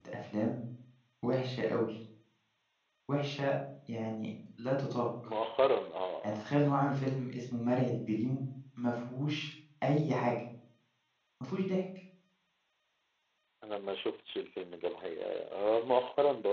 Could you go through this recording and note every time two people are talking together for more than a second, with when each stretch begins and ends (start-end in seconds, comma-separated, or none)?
none